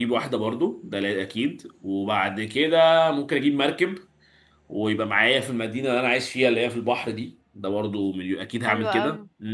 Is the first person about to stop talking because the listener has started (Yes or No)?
Yes